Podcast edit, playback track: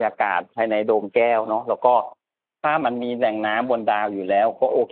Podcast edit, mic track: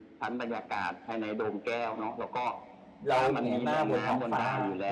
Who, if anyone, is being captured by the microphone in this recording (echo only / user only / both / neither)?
both